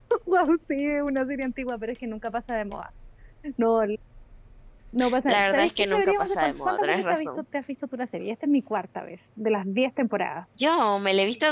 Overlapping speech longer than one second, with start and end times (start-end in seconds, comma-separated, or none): 5.3-7.4